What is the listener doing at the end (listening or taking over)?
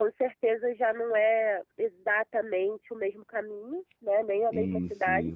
listening